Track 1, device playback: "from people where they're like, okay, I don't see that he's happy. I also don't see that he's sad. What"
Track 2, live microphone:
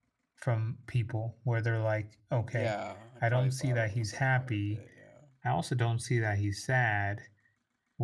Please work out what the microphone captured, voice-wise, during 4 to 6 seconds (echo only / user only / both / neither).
both